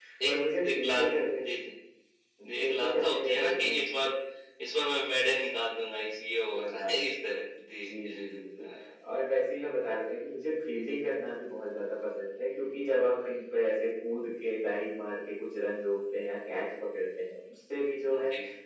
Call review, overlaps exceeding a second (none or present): present